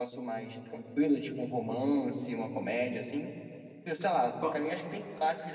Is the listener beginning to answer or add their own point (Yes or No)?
No